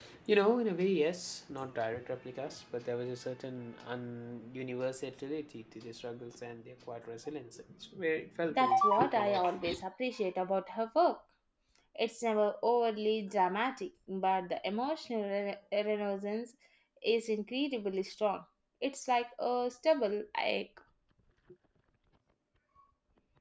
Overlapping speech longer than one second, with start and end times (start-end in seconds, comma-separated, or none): 8.5-9.8